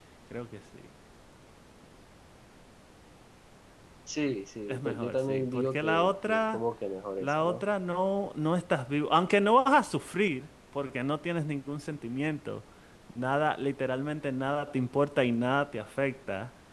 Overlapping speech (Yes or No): Yes